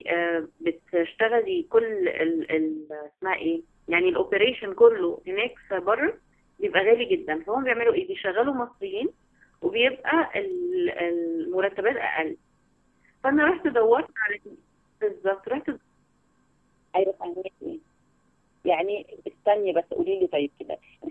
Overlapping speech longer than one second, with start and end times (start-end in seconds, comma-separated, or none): none